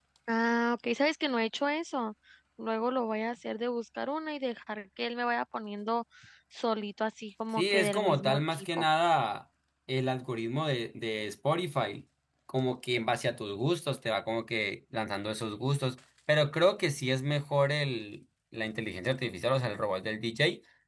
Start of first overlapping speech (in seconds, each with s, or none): 7.6 s